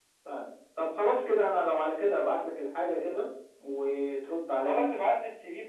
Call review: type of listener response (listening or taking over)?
taking over